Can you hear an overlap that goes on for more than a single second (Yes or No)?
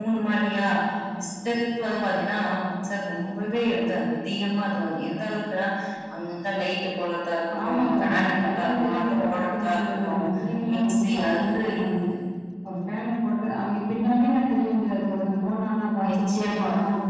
Yes